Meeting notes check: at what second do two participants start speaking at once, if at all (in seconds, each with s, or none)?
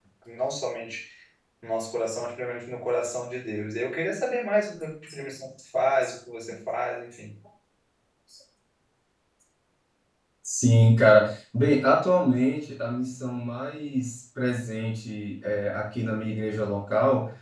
none